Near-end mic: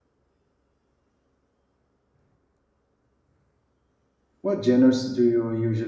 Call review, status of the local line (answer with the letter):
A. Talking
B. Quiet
A